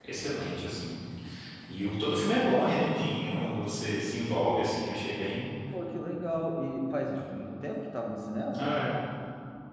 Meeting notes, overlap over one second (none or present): none